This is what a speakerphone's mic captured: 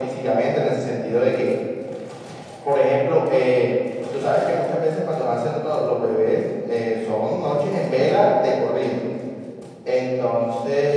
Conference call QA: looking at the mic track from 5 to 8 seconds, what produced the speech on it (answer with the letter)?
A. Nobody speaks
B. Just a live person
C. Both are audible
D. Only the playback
D